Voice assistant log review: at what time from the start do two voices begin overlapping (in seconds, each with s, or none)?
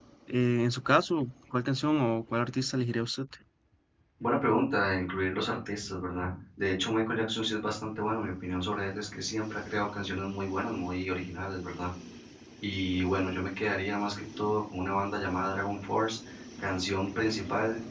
none